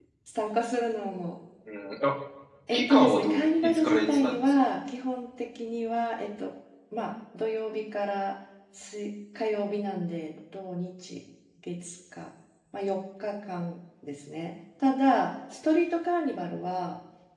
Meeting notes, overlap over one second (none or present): present